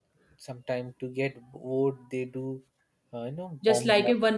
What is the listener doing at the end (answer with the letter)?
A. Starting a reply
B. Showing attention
A